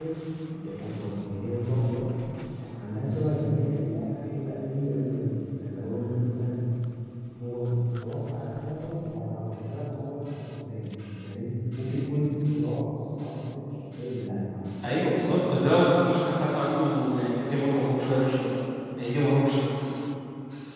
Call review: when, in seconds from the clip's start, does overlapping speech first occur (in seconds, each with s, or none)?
none